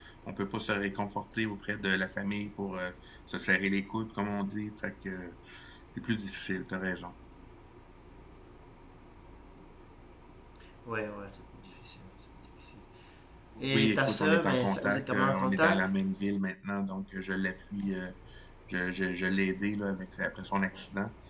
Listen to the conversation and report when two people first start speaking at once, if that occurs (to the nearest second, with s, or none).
14 s